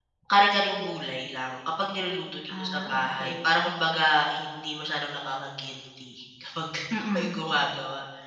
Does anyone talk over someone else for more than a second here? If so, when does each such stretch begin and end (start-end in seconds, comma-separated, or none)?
2.5-3.7